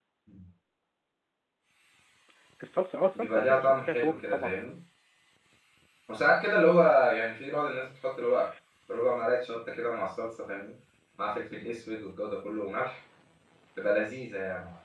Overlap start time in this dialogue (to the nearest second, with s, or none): 3 s